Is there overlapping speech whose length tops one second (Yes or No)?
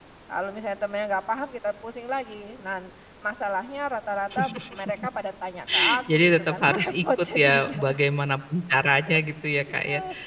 Yes